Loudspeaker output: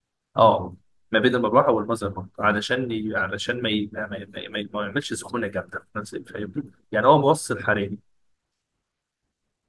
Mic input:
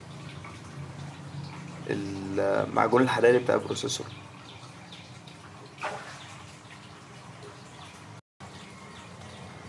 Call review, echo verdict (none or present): none